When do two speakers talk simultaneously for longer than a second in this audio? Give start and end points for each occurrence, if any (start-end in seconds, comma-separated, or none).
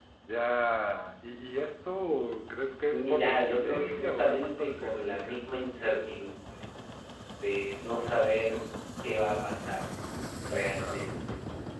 2.9-5.4